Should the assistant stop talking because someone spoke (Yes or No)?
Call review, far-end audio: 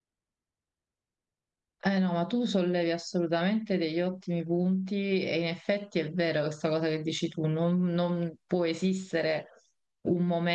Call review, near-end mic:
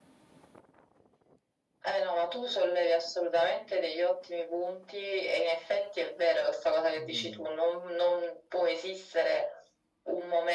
Yes